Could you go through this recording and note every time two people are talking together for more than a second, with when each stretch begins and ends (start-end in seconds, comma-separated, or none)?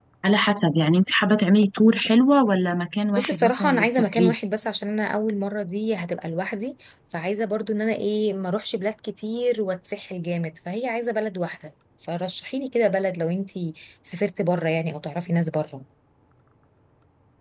3.1-4.3